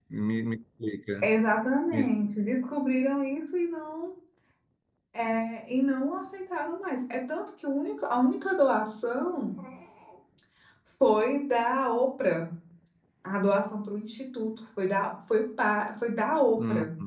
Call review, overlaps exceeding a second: none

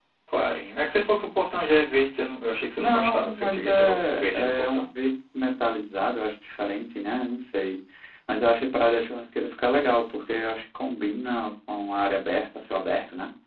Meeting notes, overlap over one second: present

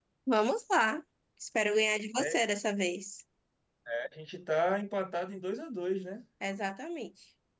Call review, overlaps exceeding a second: none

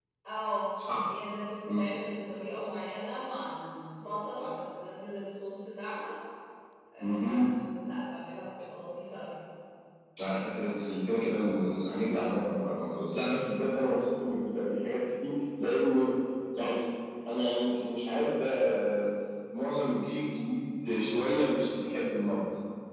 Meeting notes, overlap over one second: none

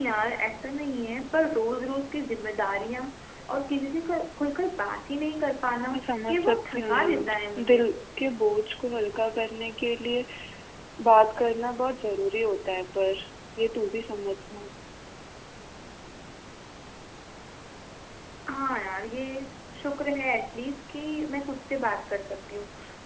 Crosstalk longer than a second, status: present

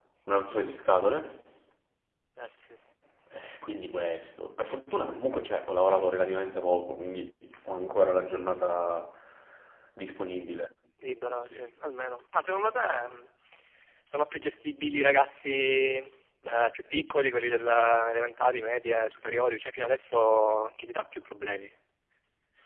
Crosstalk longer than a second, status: none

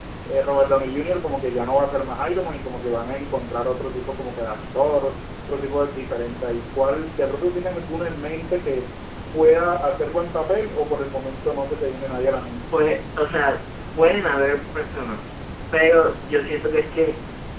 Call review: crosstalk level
none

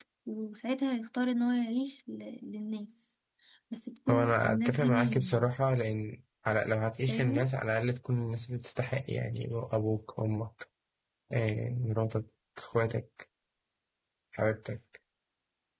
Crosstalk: present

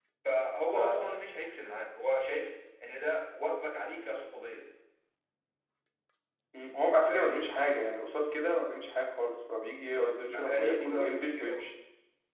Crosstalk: present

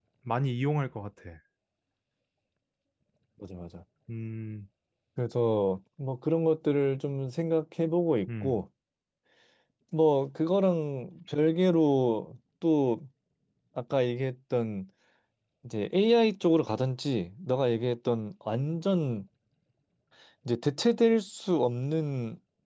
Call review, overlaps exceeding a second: none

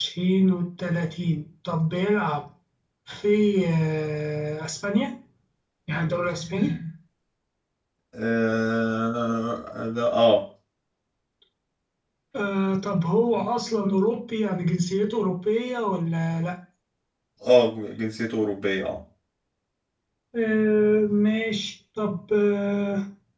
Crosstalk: none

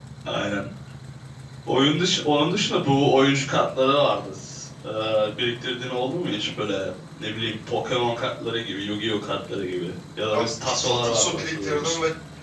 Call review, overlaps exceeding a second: present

